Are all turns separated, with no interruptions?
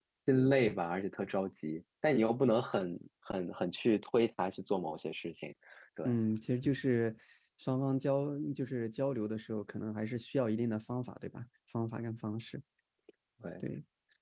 Yes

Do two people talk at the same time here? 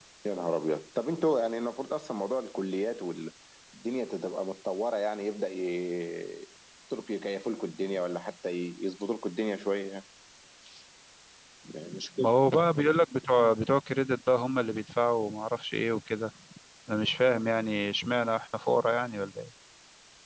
No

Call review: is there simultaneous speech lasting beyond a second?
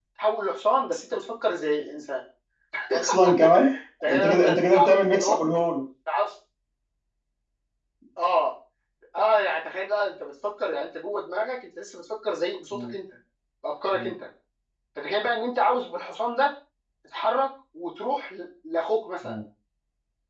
Yes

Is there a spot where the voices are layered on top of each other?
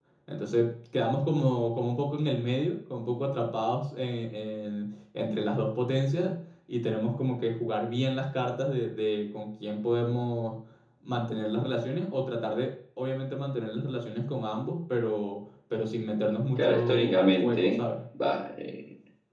Yes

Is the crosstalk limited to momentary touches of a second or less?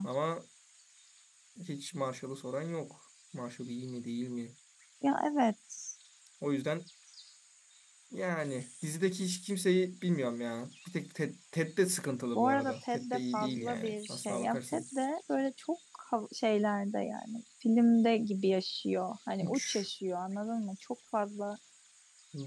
No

